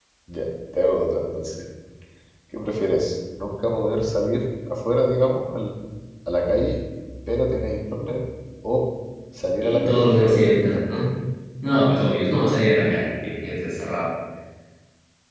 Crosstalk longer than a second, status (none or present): present